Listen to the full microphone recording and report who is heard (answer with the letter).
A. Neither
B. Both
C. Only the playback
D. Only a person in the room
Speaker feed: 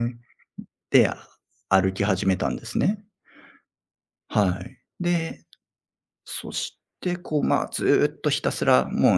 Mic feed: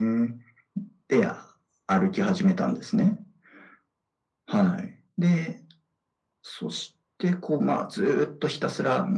C